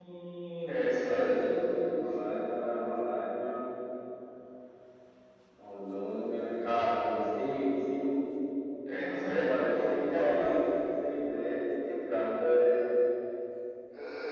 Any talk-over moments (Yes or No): Yes